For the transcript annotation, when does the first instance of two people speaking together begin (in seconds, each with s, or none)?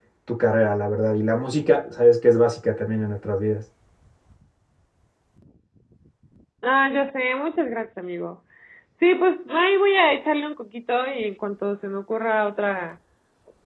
none